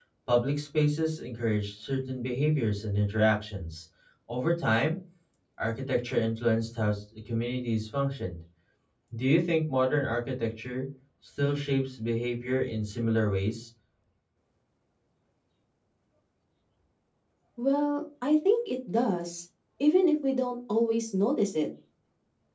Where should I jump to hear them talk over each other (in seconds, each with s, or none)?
none